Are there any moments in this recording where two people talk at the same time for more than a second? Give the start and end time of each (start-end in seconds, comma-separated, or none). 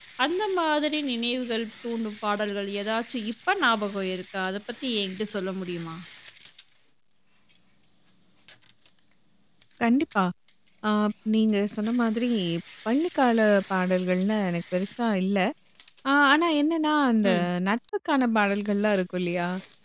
none